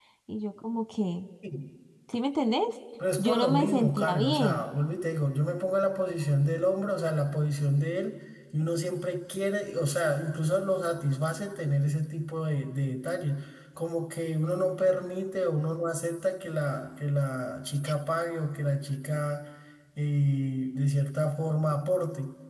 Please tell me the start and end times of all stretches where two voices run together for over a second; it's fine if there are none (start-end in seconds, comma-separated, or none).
3.2-4.6